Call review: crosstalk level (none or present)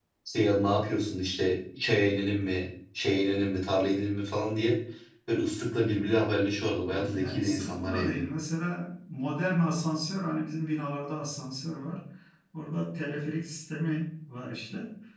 present